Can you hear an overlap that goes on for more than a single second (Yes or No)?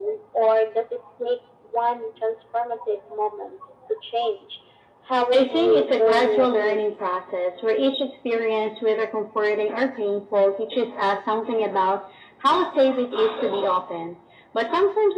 Yes